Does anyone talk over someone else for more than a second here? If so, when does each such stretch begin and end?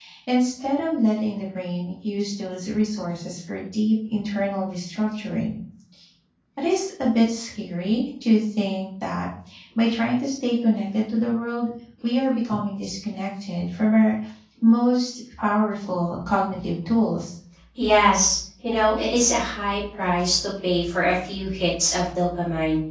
none

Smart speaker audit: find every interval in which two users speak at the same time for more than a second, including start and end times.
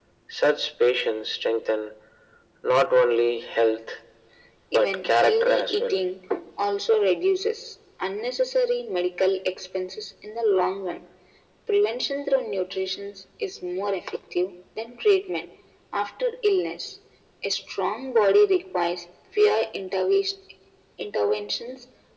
4.7-6.0

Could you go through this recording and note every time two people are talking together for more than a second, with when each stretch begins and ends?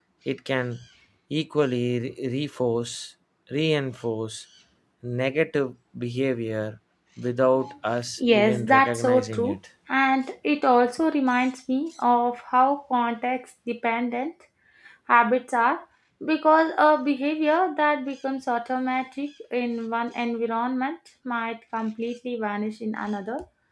8.3-9.6

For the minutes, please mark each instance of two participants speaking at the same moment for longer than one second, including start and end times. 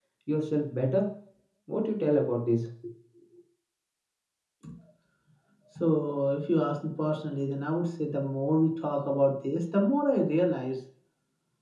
none

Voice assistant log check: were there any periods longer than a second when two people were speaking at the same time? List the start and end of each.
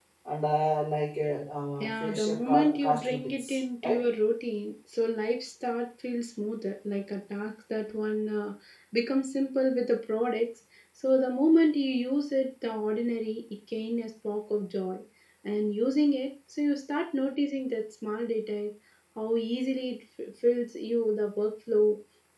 1.8-4.1

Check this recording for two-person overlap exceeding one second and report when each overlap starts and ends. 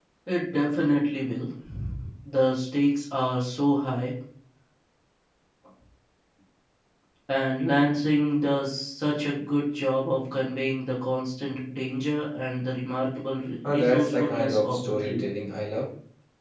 13.6-15.2

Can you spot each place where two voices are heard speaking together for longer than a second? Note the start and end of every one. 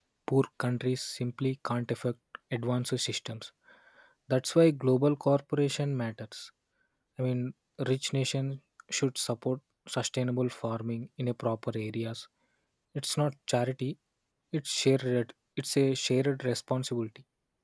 none

